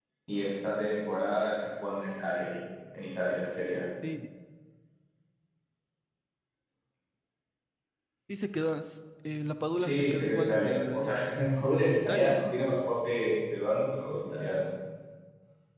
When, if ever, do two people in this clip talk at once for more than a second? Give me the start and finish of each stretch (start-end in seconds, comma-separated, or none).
9.8-12.4